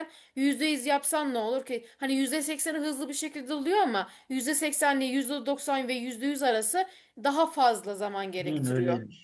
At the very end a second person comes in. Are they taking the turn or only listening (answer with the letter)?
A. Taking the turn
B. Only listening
A